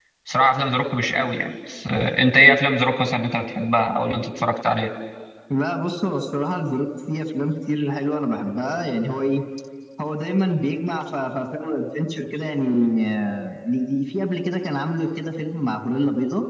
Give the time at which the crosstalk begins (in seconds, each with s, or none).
none